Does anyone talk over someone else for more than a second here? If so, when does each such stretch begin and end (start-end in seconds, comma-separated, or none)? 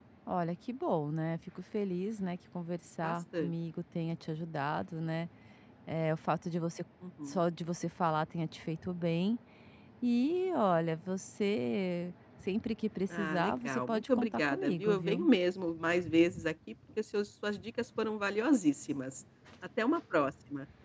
13.2-15.3